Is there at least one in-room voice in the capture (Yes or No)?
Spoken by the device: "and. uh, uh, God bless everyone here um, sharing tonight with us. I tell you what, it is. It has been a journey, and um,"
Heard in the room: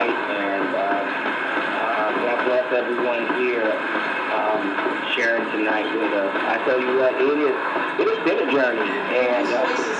Yes